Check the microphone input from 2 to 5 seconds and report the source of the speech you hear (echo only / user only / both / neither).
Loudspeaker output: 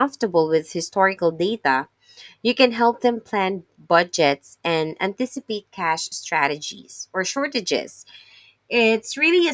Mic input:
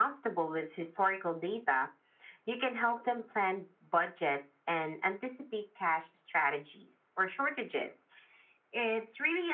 echo only